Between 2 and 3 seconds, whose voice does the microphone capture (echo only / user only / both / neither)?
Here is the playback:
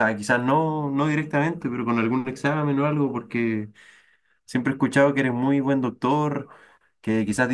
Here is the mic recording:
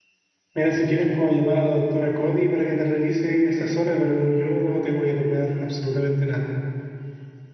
user only